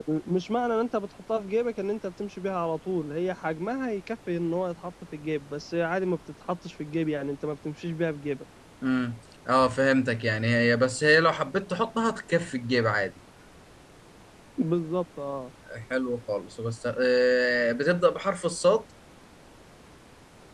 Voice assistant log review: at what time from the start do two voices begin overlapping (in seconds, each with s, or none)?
none